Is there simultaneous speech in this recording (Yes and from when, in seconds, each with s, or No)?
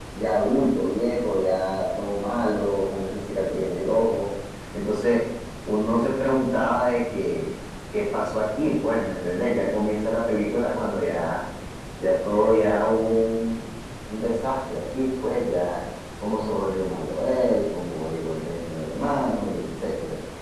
No